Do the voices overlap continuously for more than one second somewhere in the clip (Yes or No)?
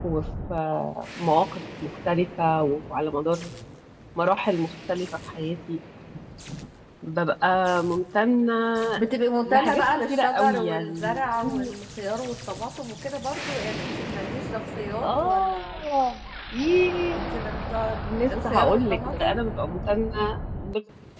Yes